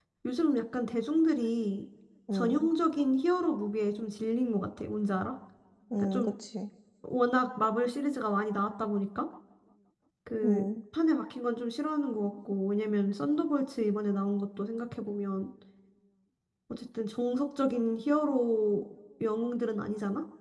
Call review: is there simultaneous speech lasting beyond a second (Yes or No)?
No